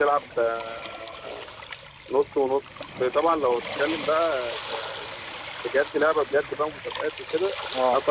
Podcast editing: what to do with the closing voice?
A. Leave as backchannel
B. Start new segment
A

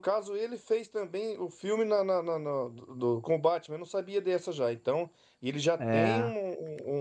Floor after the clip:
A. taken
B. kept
B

